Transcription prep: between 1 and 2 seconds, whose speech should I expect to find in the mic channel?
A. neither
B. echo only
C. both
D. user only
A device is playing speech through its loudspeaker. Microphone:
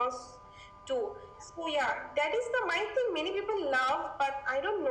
B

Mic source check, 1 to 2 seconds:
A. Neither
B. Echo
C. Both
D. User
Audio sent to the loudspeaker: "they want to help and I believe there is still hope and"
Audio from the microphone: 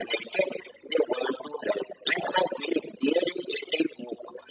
B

